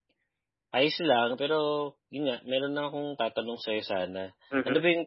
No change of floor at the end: Yes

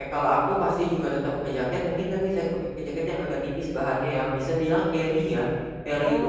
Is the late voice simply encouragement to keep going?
Yes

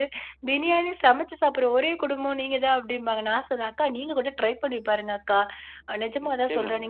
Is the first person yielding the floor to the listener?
No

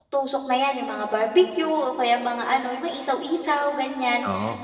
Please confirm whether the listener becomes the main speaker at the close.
No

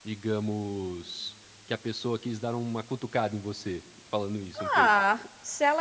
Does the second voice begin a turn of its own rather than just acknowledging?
Yes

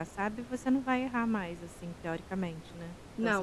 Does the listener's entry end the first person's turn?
Yes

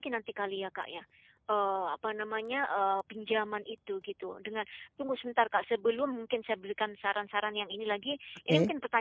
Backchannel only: Yes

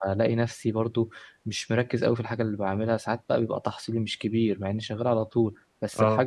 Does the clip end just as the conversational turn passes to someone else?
No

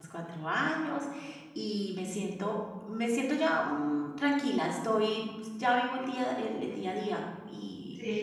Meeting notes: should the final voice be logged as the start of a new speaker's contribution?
No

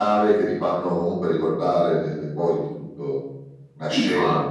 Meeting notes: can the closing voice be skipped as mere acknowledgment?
No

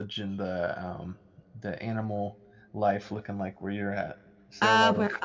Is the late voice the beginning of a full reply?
Yes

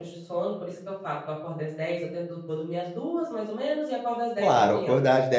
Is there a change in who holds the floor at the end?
Yes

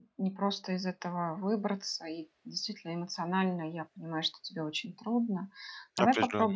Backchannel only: Yes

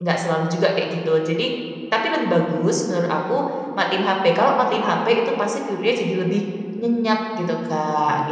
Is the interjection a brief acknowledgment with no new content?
No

